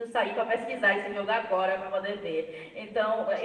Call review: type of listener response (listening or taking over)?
taking over